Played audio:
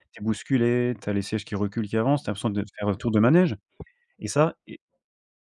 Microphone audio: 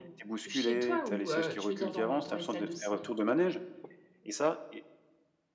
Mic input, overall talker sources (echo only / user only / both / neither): both